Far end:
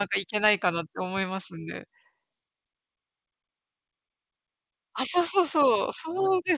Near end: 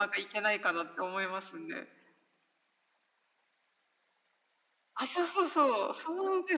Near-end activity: none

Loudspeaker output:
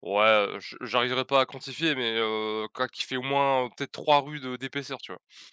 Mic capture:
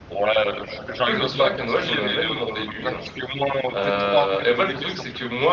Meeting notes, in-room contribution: present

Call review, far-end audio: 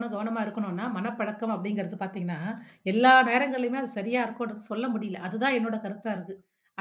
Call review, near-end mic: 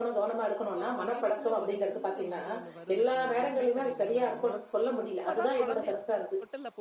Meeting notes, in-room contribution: present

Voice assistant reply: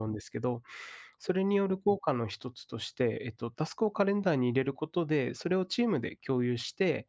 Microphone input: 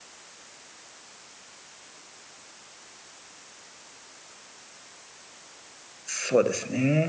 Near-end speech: present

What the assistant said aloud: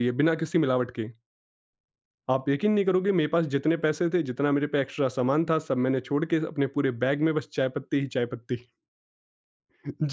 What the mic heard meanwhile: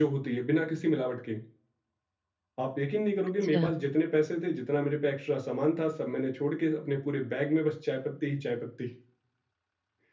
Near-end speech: present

